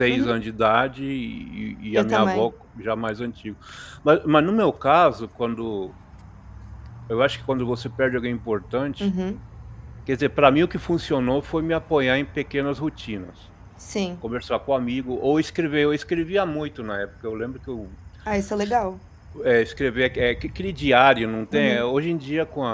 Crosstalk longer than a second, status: none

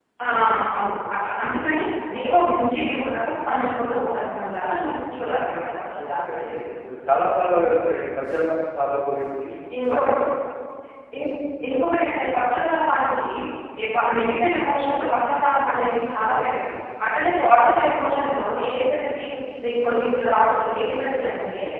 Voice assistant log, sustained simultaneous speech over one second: none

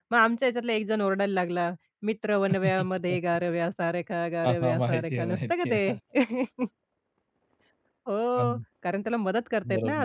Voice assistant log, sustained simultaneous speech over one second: present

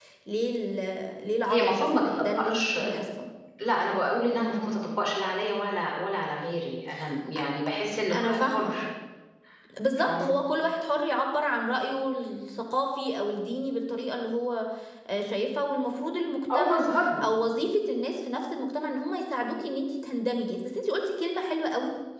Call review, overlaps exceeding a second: present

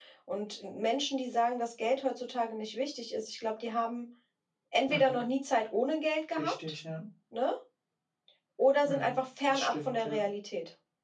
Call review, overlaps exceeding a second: present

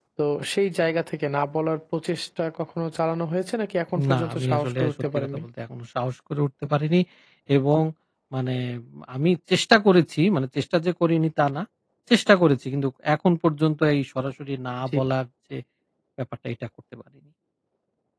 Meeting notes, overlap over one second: present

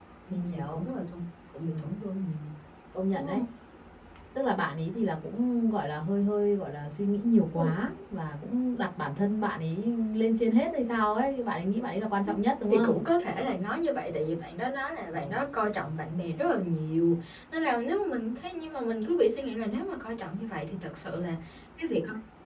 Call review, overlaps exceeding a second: none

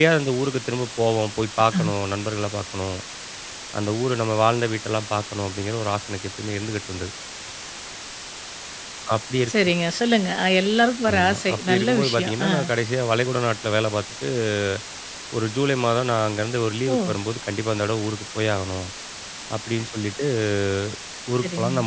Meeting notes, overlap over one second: present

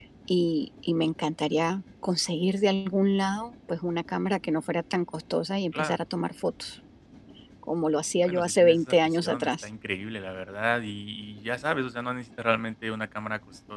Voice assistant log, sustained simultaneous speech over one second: present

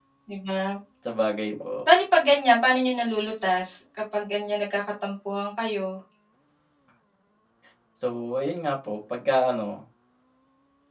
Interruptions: none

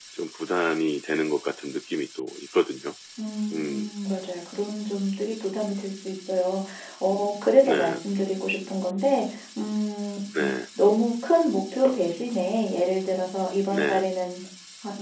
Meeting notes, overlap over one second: none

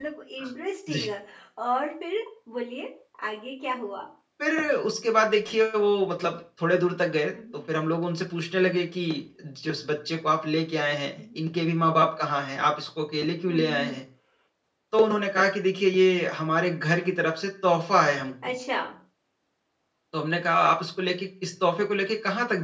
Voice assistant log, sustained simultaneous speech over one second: none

